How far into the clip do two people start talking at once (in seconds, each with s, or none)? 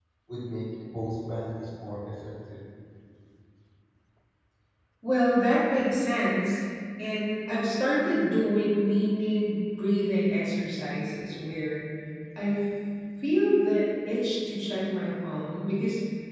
none